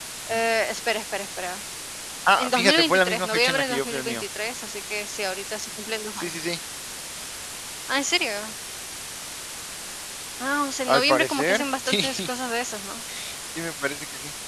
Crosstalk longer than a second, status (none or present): present